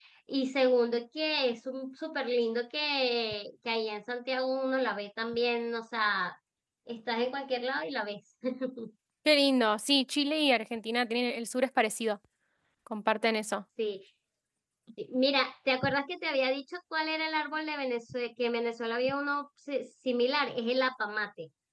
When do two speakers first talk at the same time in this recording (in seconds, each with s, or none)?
none